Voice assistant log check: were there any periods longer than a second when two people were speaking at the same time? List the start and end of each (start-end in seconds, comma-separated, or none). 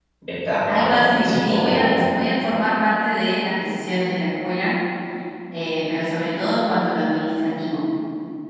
0.7-1.9